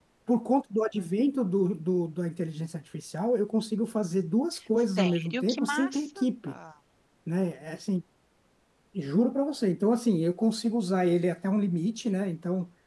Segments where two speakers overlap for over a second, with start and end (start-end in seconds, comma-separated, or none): 5.0-6.2